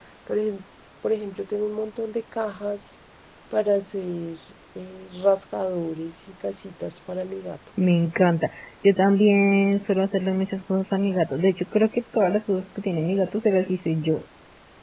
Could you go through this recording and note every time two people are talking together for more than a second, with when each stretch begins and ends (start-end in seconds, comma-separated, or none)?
none